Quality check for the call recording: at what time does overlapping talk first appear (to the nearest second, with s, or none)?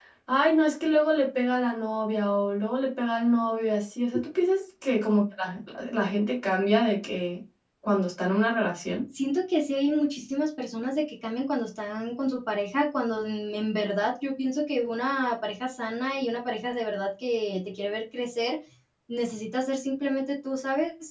none